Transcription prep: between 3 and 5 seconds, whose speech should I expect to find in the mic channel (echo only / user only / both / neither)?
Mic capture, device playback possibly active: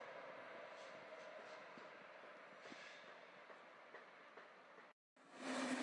neither